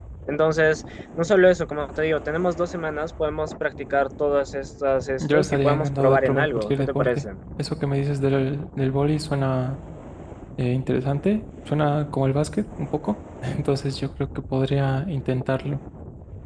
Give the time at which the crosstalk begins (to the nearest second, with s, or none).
5 s